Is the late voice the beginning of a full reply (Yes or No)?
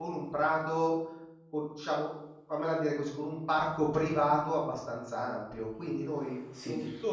Yes